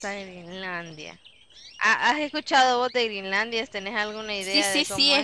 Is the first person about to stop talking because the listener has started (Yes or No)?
Yes